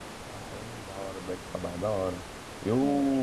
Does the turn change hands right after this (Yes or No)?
No